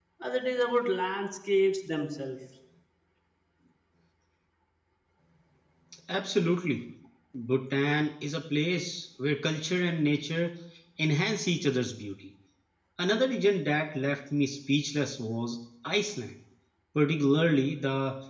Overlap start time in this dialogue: none

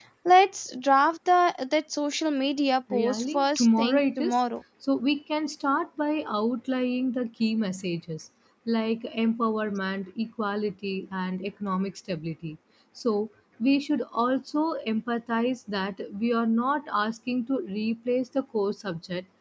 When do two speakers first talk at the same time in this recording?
2.9 s

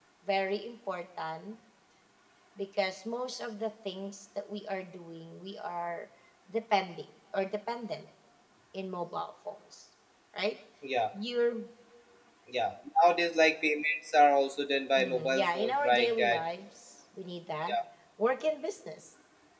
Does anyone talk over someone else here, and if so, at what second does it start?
15.0 s

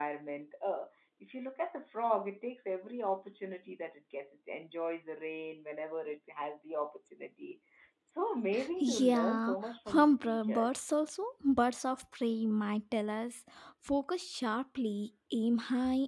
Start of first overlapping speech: 8.8 s

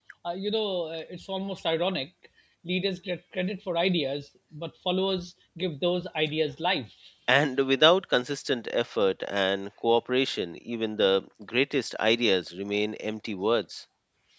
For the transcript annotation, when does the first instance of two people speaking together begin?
none

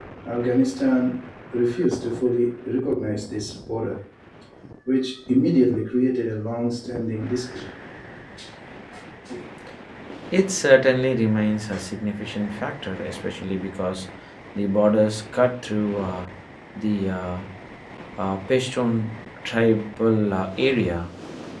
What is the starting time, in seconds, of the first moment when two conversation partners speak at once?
none

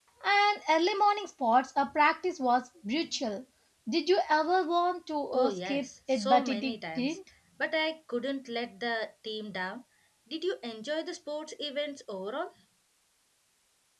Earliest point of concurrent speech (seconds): 5.3 s

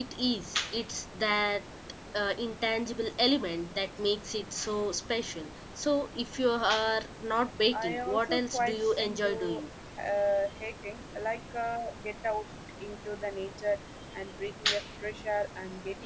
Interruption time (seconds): 7.7 s

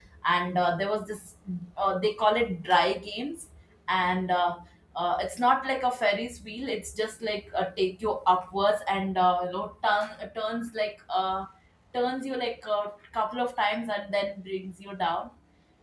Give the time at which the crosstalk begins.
none

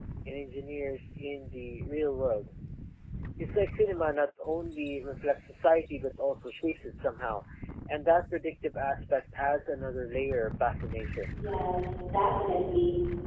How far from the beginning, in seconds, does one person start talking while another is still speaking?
none

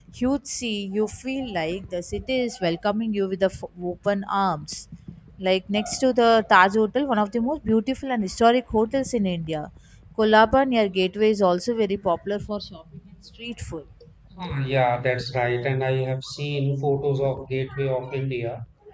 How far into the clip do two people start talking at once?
none

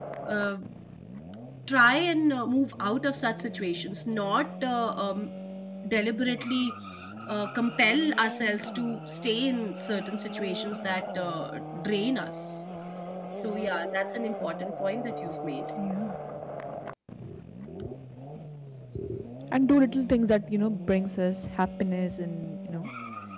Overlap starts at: none

